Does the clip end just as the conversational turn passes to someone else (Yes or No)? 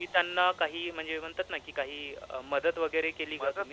Yes